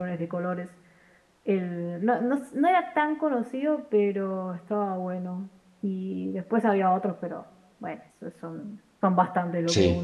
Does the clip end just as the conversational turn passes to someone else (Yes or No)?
Yes